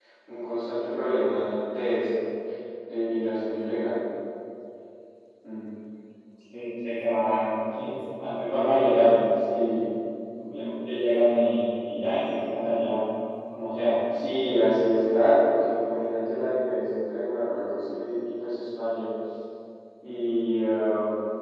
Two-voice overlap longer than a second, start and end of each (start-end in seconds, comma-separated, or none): none